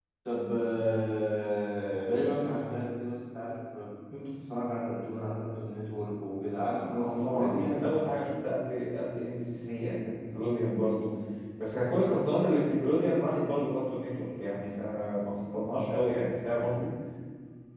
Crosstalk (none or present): present